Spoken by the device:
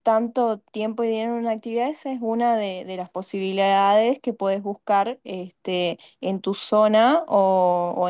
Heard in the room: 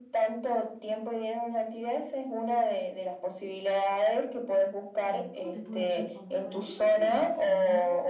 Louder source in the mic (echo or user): echo